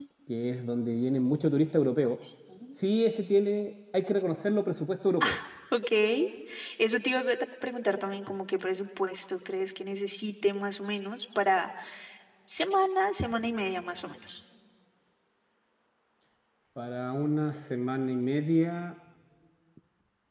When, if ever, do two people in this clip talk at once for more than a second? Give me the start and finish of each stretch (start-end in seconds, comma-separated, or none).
none